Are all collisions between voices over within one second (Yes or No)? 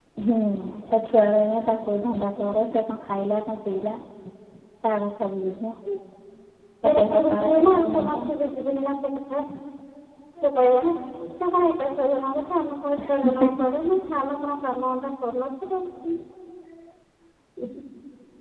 No